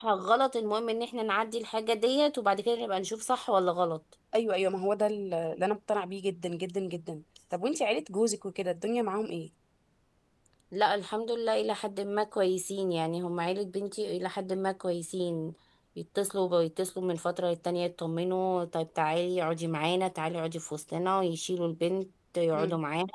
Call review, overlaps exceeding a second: none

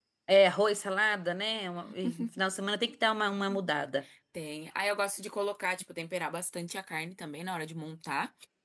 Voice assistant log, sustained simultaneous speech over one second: none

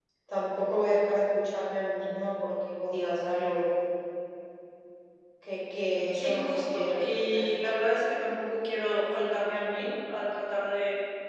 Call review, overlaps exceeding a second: present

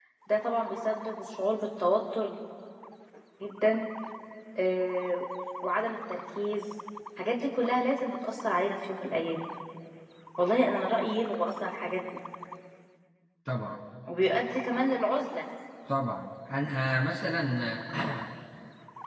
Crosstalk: none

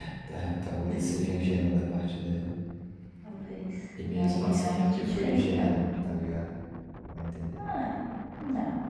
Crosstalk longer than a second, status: present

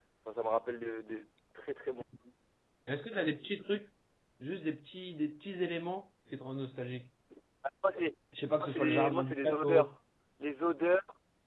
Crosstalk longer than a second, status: present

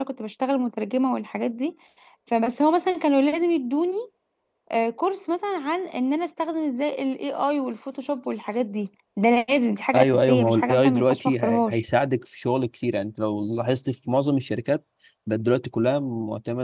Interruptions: present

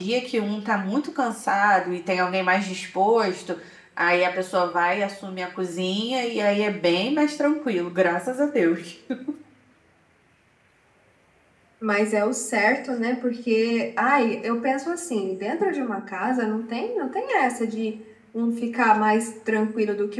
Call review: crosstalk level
none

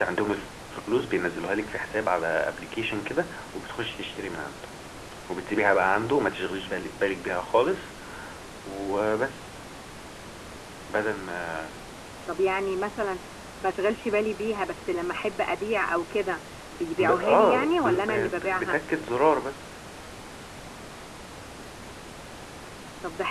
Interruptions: present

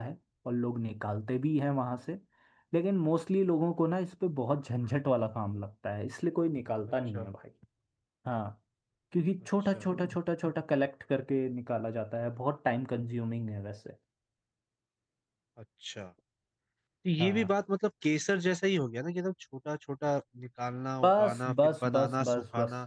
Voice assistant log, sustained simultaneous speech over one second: present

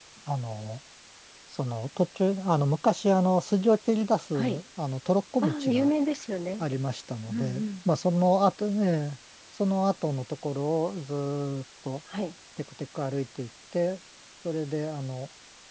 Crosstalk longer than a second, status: none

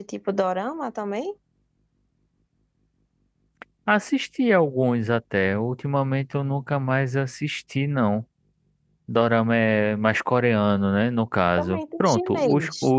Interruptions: present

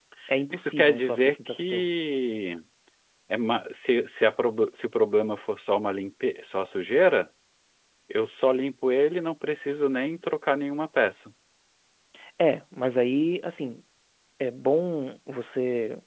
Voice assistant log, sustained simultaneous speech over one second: present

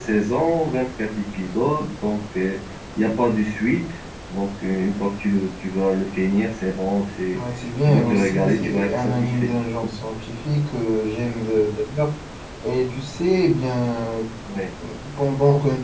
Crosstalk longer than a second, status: present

